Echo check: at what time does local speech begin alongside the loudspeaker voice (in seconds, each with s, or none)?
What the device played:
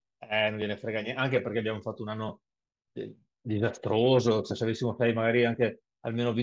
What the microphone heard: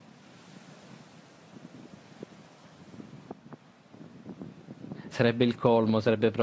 5.1 s